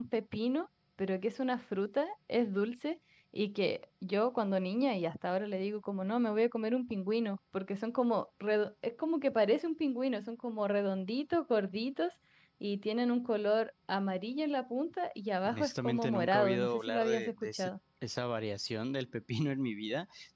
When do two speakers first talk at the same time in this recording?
15.4 s

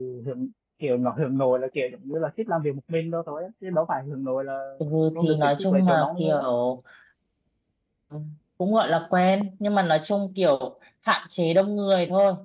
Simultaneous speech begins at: 5.1 s

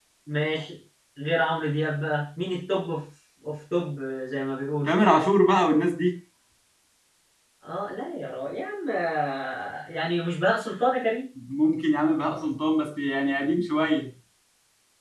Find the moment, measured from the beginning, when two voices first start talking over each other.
none

